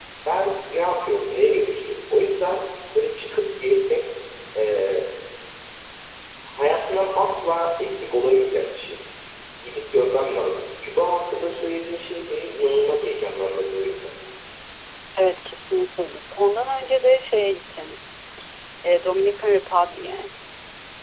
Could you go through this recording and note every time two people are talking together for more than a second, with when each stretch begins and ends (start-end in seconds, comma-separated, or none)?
none